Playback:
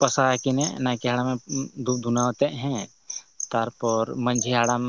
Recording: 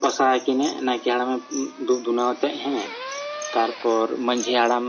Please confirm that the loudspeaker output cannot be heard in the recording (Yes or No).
No